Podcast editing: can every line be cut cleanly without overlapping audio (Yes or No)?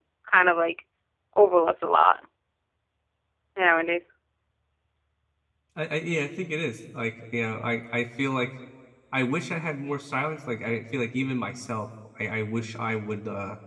Yes